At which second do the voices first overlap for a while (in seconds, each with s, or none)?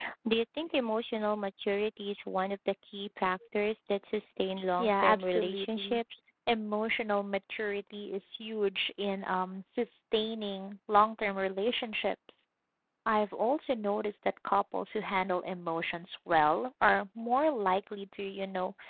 4.8 s